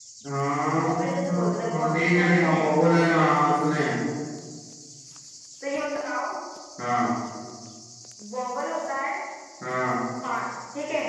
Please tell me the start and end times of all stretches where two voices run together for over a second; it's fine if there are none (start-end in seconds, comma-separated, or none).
0.8-2.7